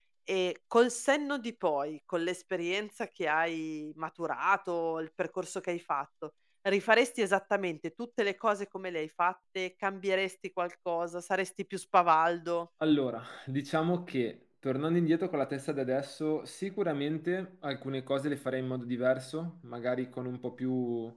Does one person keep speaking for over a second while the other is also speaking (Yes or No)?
No